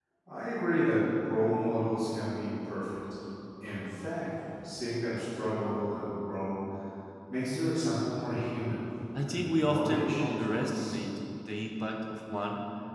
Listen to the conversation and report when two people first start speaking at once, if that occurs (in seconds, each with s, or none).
9.2 s